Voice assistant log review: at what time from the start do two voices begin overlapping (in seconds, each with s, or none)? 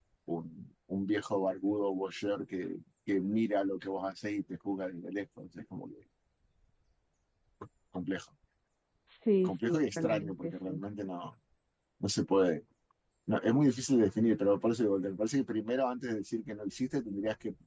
9.4 s